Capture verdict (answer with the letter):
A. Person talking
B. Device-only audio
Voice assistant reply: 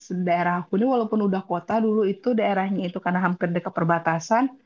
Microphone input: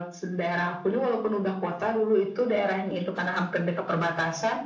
B